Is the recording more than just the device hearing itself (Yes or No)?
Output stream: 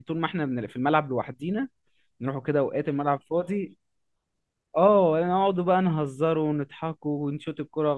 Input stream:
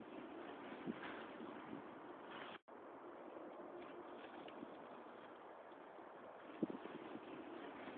No